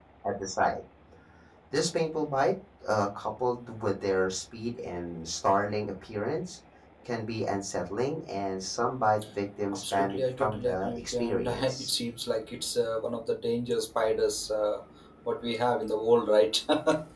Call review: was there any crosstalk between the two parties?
Yes, from 9.7 s

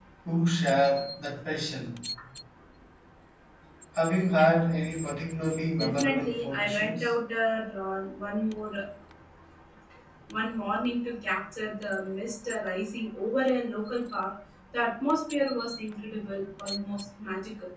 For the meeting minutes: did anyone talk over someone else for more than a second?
Yes, from 5.8 s

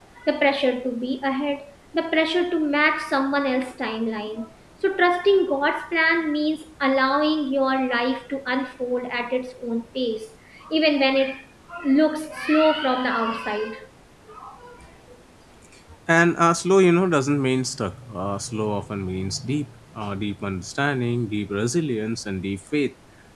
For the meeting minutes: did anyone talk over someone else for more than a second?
No

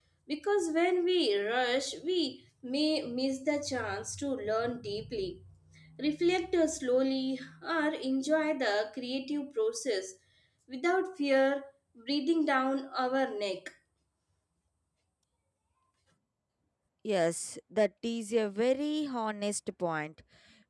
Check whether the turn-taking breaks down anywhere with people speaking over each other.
No

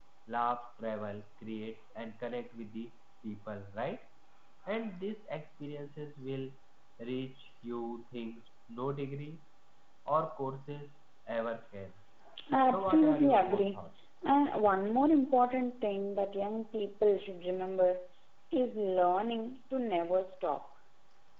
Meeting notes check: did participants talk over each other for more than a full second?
Yes, from 12.7 s

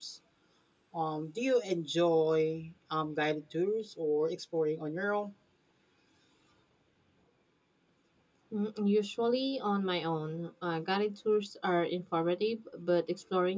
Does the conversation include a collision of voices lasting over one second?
No

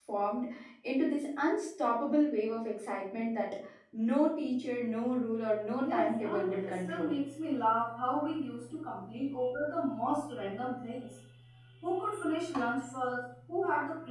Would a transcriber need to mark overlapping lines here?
Yes, from 5.8 s

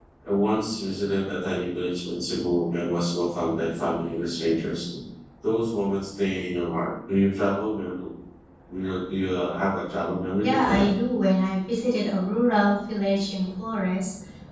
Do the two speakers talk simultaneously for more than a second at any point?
No

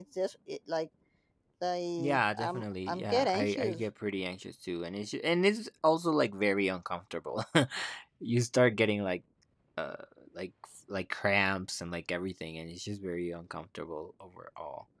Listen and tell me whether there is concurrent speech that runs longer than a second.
Yes, from 2.0 s

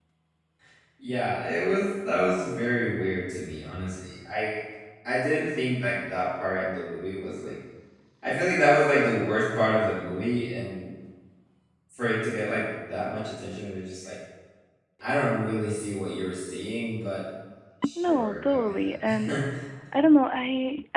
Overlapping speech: Yes, from 18.0 s

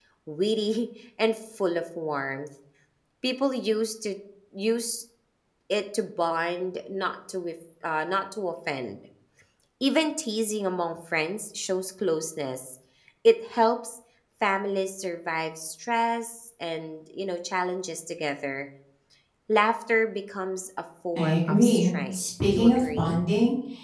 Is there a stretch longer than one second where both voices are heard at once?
Yes, from 21.2 s

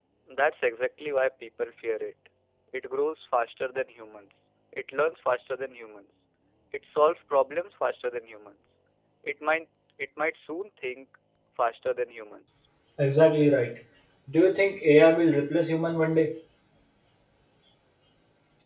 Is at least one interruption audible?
No

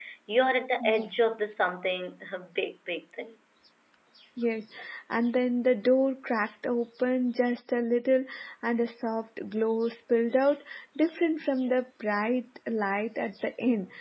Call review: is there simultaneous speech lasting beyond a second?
No

